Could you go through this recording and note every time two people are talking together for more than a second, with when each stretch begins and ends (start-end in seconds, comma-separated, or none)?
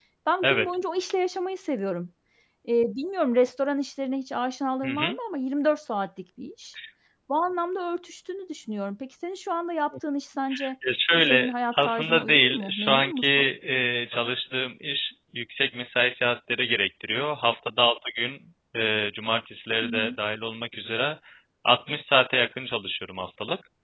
11.3-13.5